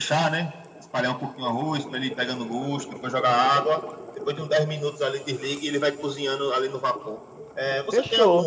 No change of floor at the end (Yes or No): Yes